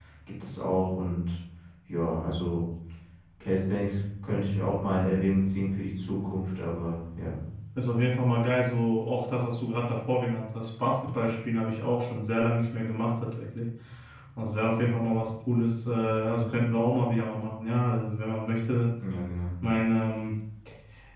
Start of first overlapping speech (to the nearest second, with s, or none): none